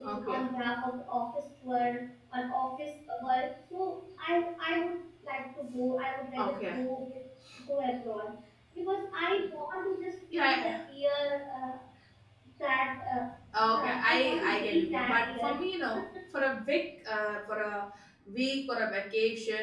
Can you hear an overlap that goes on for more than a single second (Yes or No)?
Yes